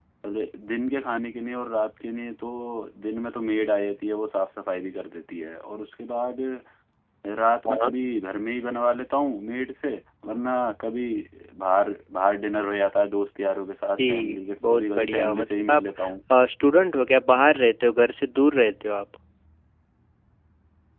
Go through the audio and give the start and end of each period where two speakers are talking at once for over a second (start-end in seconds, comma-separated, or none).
14.0-15.8